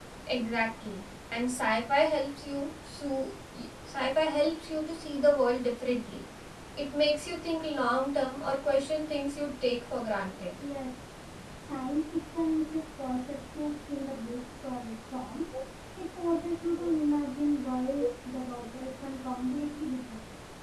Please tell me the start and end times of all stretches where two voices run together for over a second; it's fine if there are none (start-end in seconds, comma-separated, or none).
none